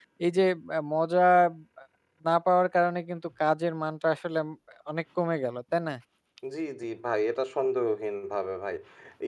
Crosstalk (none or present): none